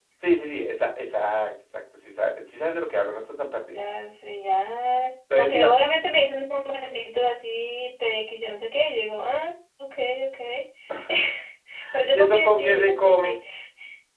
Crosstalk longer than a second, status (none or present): present